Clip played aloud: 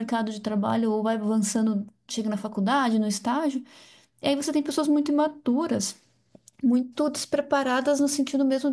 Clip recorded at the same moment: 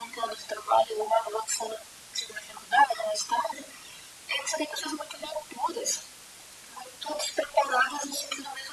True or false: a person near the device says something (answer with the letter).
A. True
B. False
B